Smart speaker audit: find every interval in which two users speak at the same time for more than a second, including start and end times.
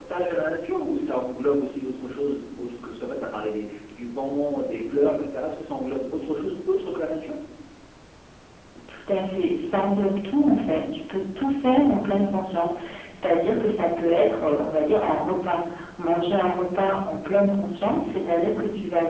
none

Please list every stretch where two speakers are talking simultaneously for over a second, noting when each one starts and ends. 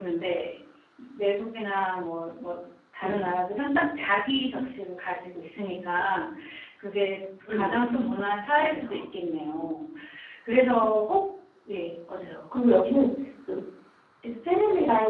none

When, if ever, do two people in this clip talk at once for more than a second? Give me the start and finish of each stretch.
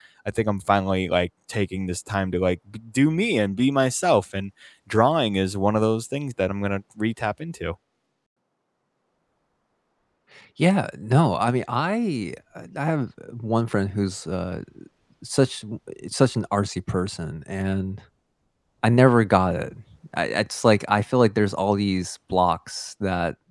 none

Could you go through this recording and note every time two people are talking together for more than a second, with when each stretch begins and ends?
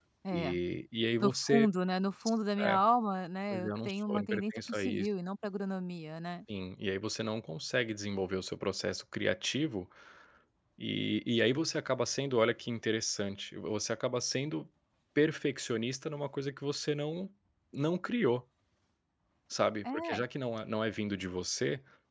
3.5-5.1

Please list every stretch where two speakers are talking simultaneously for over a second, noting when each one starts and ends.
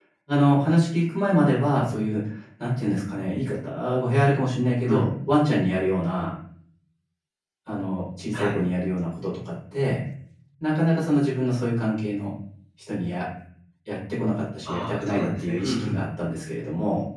14.7-16.0

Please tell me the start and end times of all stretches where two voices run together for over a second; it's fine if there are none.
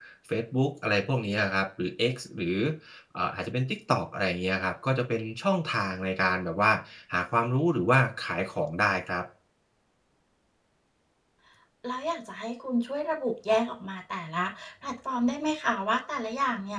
none

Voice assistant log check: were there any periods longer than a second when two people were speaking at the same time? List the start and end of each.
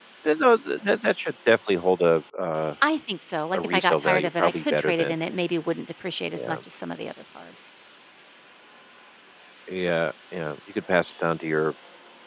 3.6-5.1

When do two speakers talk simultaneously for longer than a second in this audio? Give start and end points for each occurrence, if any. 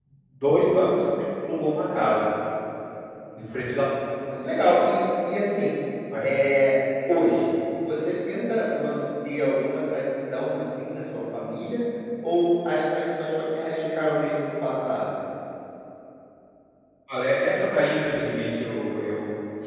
none

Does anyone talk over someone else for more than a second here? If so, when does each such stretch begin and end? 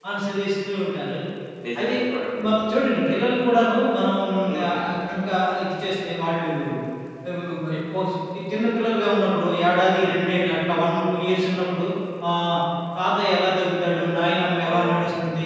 none

